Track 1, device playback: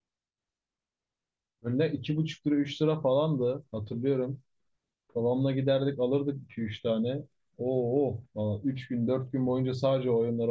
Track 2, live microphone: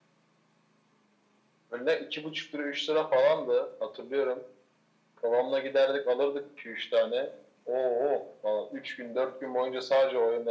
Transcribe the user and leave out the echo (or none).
none